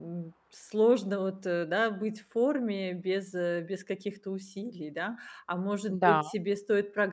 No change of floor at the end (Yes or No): Yes